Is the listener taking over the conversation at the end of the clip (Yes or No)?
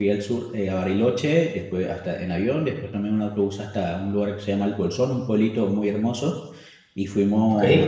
No